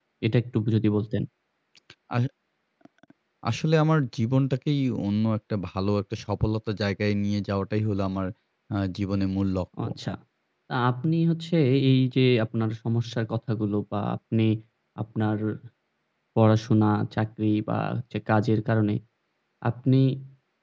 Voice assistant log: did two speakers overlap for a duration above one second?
No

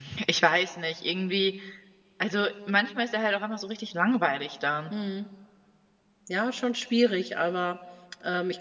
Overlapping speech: No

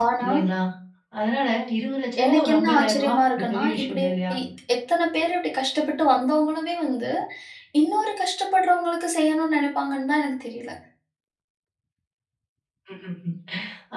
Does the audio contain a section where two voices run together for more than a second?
Yes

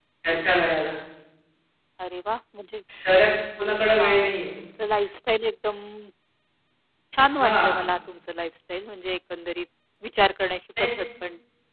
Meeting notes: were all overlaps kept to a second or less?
Yes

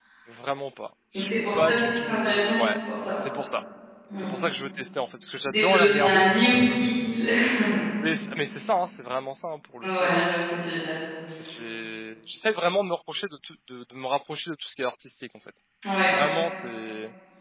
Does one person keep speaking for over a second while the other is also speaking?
Yes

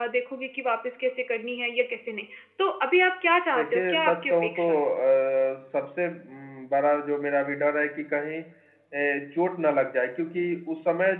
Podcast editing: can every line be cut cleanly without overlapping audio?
No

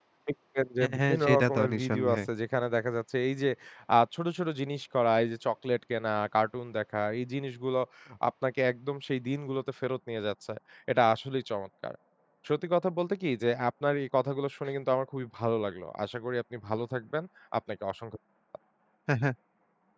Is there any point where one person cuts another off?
Yes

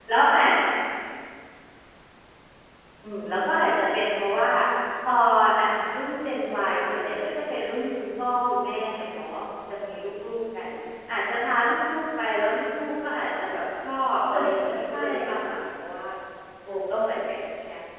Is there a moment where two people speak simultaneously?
Yes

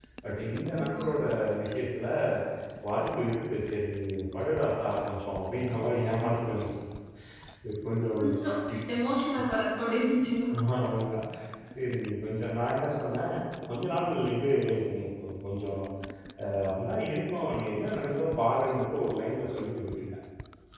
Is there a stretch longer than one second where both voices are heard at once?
No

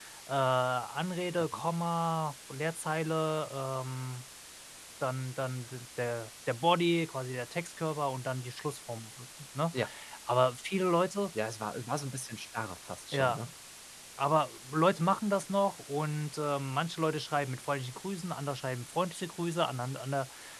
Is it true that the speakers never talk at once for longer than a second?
Yes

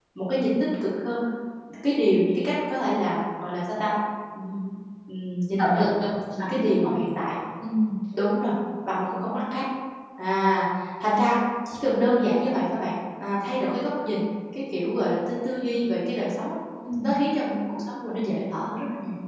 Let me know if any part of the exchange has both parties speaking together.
Yes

